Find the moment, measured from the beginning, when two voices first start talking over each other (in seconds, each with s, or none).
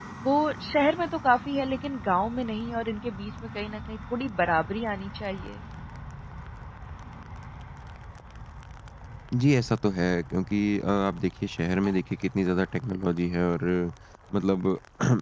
none